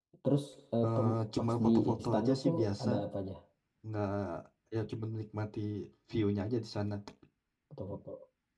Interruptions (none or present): present